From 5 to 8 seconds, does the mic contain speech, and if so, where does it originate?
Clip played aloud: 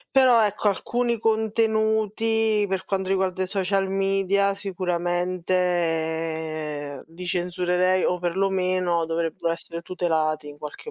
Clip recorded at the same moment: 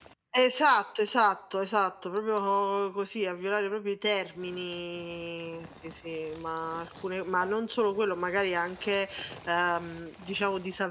user only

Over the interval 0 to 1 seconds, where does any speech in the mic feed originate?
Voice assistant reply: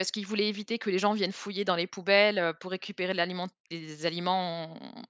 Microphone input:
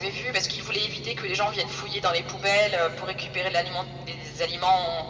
echo only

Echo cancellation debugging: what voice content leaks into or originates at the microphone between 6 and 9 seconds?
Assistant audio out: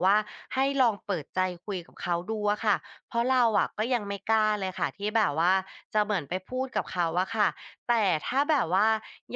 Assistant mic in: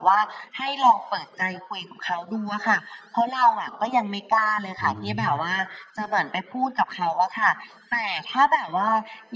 echo only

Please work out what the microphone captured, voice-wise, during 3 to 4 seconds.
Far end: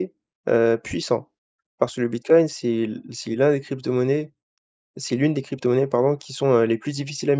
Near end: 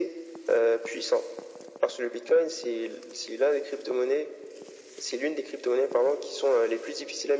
echo only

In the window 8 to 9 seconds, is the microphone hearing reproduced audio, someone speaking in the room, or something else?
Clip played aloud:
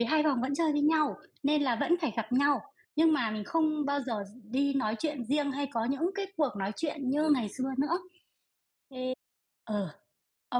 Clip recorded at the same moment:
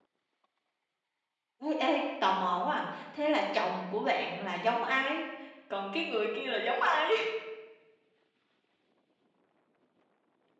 neither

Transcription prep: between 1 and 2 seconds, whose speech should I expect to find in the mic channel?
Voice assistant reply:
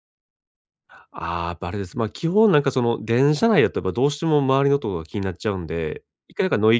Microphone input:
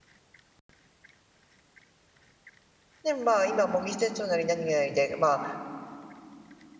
neither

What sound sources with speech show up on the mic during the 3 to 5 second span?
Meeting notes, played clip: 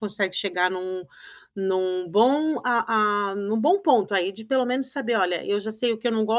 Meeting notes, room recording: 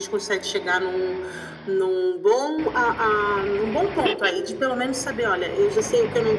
echo only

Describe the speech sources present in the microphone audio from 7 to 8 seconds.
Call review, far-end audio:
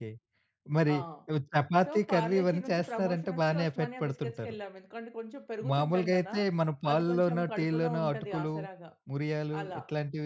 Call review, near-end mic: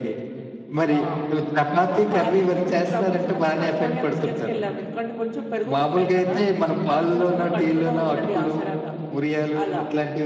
echo only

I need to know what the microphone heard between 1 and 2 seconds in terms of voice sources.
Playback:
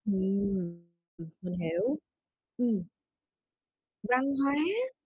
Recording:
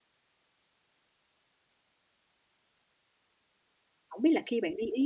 neither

